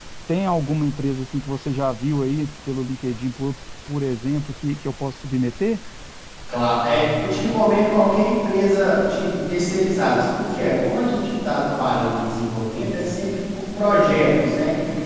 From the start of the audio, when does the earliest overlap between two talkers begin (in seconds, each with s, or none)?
none